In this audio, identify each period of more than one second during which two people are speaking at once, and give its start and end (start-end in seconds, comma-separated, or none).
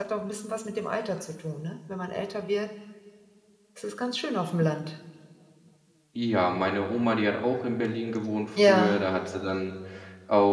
none